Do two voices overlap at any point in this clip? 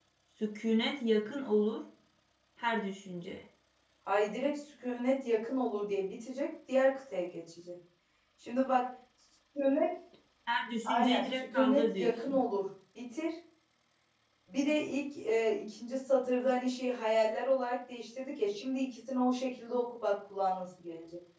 Yes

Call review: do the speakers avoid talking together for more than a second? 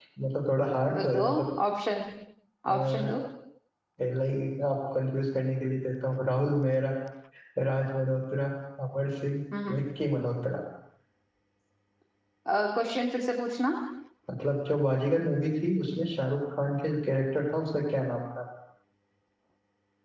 Yes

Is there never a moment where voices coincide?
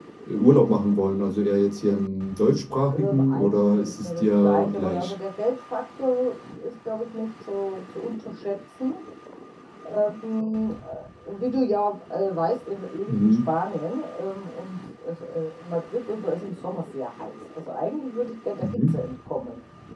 No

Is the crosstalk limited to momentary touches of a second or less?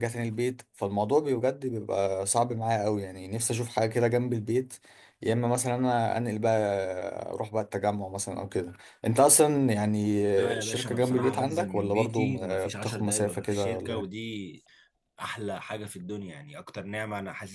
No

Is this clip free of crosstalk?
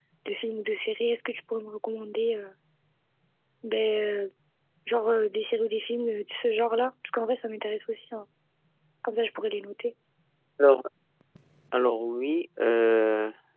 Yes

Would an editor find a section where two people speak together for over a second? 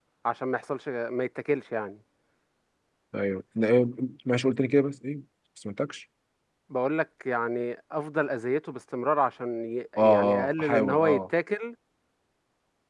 Yes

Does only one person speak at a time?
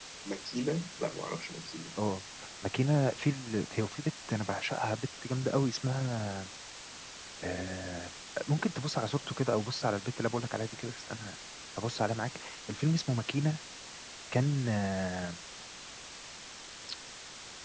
Yes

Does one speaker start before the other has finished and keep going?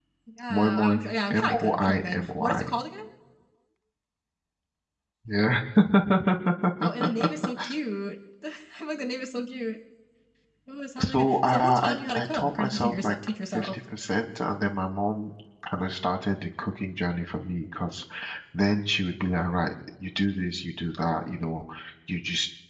Yes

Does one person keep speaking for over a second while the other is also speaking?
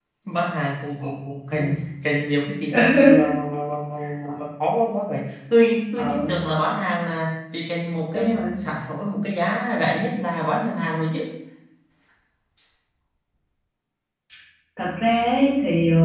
No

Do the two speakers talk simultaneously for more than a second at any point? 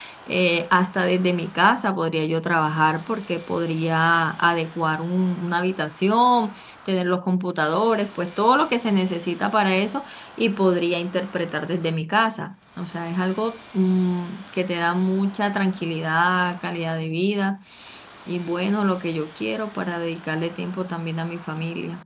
No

